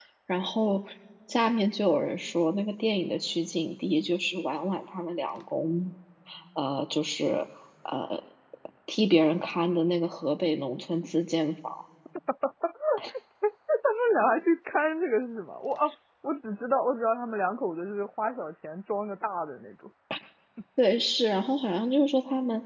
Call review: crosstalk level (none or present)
none